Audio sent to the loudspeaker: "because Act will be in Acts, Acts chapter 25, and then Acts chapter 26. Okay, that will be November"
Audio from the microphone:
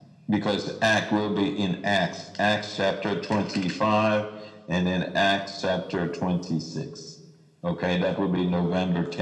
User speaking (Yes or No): No